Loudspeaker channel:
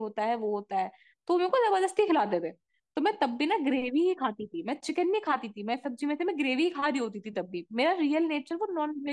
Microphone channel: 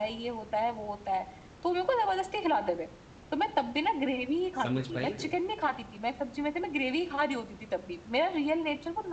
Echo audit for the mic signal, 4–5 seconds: both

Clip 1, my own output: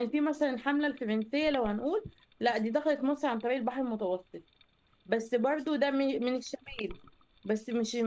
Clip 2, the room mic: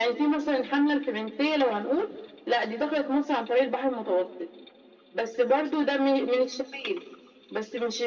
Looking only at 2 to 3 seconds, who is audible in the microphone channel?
echo only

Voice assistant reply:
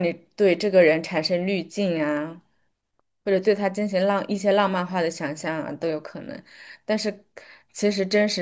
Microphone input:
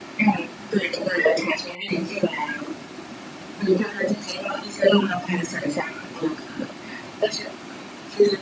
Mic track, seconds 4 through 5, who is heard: echo only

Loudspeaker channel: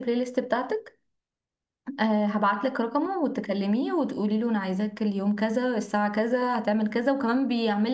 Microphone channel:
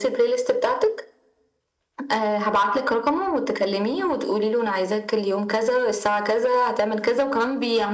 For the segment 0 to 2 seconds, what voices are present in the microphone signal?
echo only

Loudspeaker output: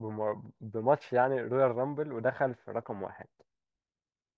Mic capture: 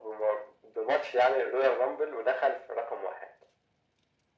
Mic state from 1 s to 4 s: echo only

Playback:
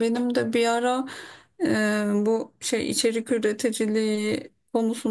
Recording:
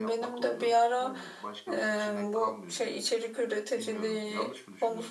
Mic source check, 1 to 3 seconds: both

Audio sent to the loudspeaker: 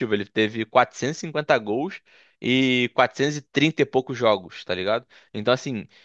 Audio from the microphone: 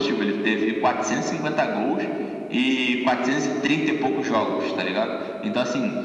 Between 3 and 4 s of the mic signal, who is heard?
echo only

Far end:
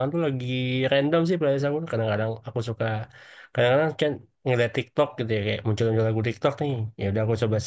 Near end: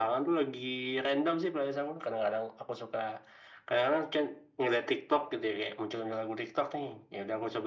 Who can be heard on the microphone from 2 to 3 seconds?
echo only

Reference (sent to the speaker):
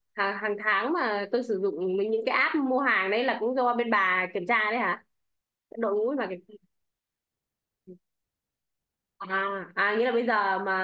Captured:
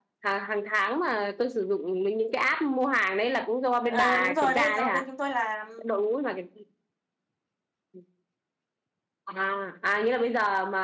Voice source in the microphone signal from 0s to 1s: echo only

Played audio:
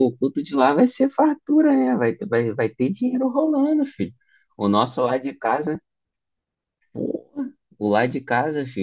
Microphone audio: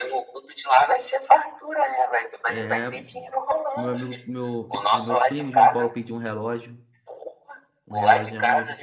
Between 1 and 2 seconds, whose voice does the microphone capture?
echo only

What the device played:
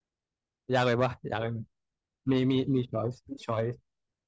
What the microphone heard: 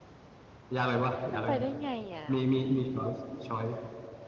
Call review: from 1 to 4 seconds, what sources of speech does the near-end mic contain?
both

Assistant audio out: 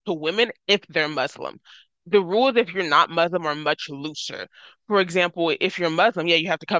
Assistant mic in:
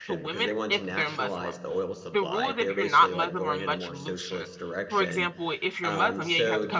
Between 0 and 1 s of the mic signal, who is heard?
both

